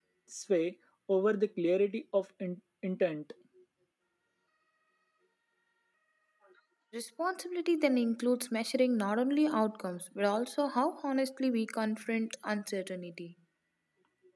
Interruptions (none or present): none